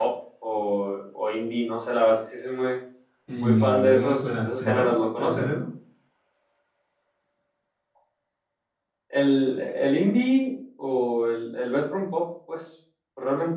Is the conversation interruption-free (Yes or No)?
No